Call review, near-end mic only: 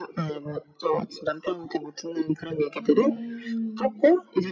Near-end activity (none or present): present